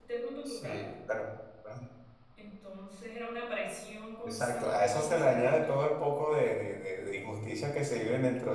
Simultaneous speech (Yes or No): Yes